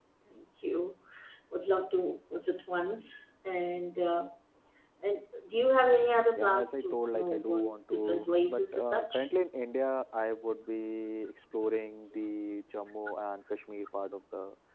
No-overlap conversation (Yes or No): No